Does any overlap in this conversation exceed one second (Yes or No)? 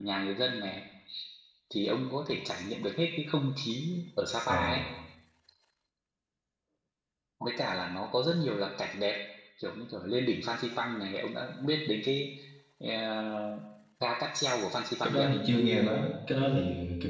No